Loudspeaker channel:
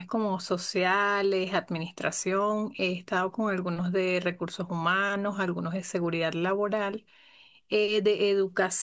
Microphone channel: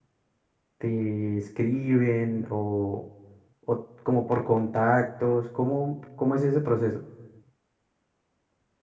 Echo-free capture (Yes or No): Yes